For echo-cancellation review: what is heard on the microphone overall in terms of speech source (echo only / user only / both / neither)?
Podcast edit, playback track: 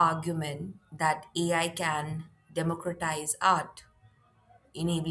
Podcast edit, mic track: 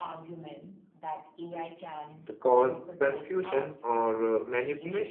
both